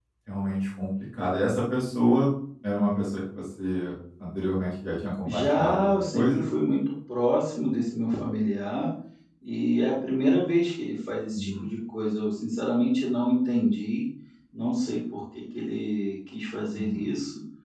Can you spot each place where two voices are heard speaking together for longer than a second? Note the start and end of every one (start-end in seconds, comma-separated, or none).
5.2-6.5